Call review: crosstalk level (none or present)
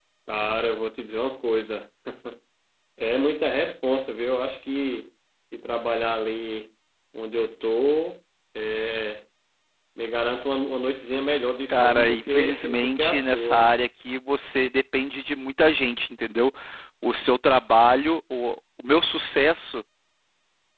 present